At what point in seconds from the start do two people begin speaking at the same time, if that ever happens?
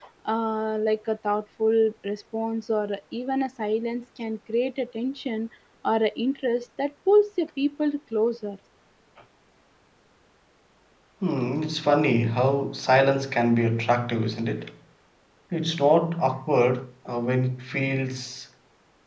none

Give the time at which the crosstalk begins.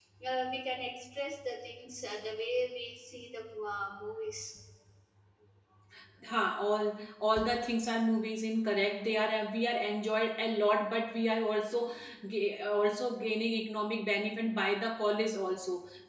none

